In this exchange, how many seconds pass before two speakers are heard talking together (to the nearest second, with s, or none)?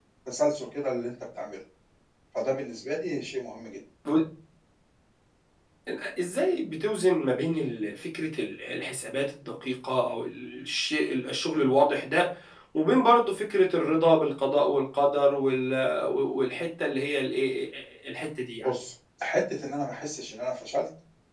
none